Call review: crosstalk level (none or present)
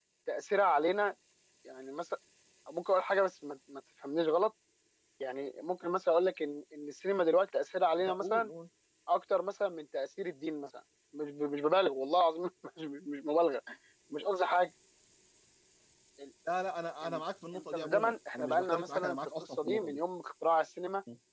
present